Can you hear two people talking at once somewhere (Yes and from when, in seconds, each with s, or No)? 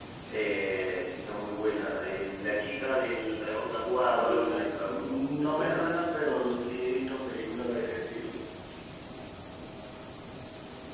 Yes, from 4.1 s